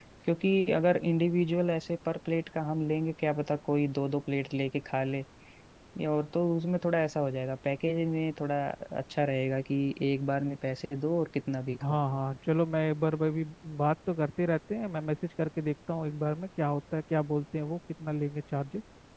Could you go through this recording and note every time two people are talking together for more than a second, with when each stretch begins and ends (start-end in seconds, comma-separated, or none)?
none